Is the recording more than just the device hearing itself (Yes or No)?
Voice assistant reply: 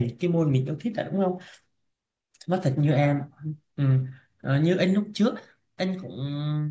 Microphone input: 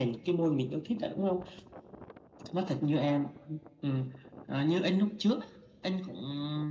No